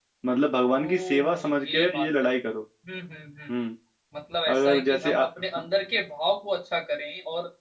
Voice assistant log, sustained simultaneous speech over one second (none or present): present